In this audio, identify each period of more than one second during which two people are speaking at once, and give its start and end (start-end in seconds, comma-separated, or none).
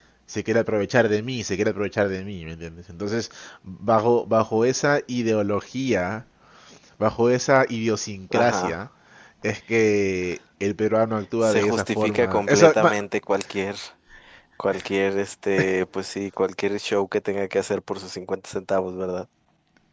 11.4-12.9